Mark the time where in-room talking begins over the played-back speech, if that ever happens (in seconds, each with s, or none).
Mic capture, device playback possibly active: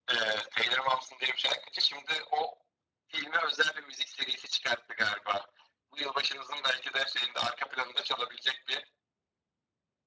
none